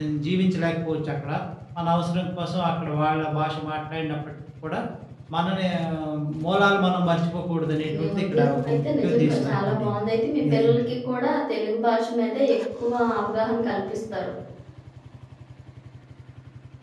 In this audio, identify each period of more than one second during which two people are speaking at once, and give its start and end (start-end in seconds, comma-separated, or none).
8.0-9.9